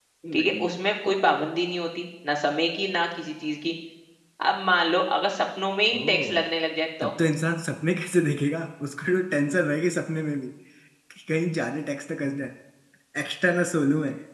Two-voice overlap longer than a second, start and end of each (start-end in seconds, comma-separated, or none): none